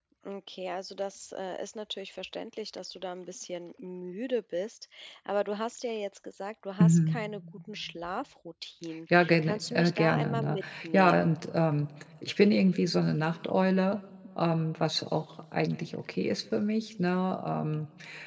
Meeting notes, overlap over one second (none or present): present